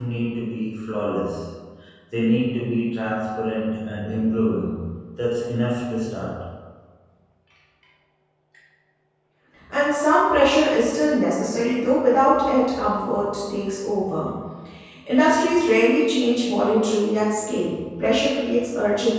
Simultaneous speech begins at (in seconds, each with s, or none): none